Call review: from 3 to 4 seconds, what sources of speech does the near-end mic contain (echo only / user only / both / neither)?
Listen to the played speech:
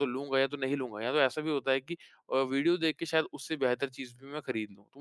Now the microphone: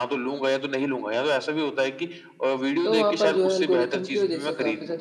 both